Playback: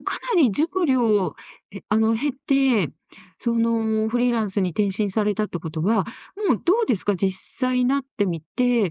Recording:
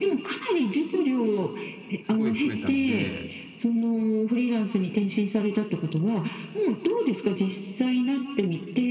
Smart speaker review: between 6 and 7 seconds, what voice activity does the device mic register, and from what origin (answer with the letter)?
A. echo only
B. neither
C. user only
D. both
A